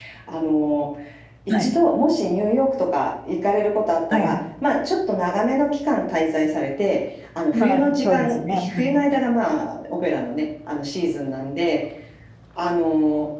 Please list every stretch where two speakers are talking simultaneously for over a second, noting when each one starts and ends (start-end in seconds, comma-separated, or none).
7.5-9.0